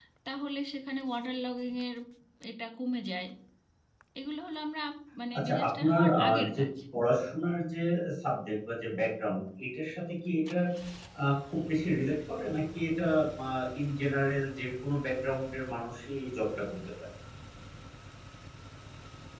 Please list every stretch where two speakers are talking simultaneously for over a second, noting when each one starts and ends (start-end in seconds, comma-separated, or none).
5.4-6.7